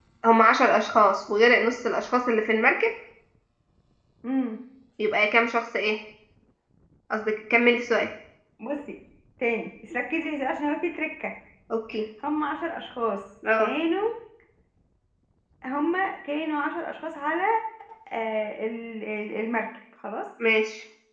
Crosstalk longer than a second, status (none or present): none